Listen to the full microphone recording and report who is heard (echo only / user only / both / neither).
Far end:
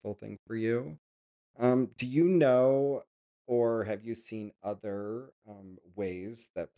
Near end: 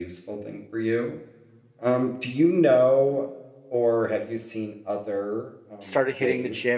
both